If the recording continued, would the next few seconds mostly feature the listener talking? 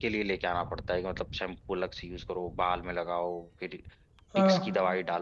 No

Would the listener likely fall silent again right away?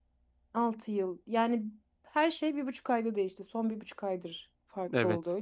No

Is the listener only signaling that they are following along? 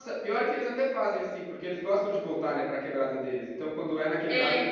Yes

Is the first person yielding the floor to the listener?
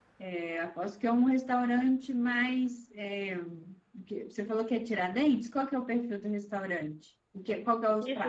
Yes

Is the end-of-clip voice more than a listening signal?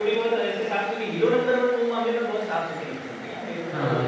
Yes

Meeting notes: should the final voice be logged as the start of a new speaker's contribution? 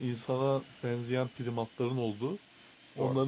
No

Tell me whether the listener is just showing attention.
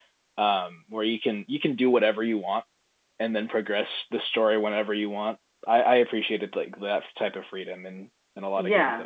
No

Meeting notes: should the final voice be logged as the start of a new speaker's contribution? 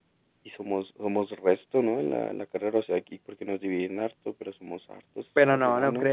Yes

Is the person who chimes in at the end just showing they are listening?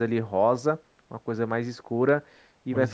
Yes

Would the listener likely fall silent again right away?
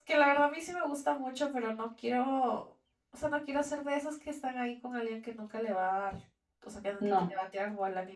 Yes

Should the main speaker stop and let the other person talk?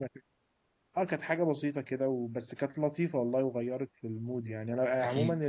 No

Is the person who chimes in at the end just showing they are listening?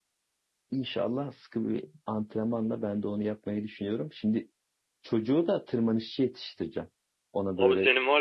No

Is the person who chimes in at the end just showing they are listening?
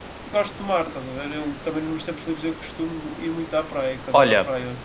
No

